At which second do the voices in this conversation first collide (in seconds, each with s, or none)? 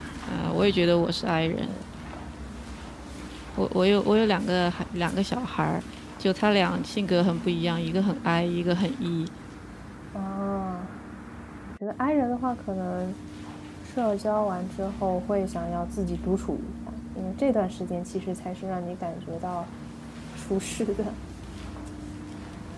none